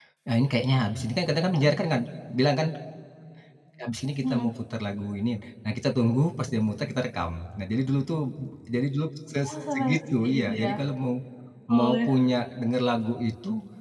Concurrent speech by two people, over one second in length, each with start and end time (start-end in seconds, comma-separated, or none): 9.5-10.7